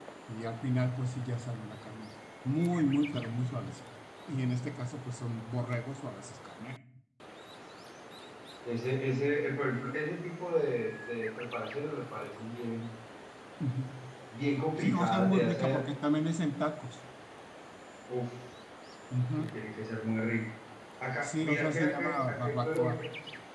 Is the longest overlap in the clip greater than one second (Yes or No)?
Yes